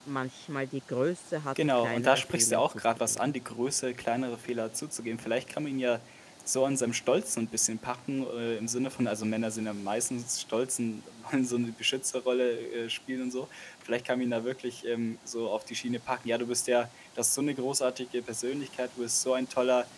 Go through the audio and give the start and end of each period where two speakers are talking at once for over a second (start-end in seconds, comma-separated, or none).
1.8-3.4